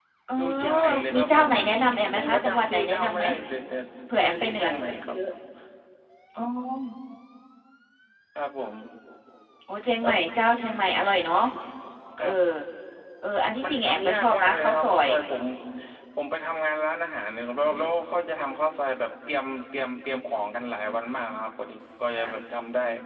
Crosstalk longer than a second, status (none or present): present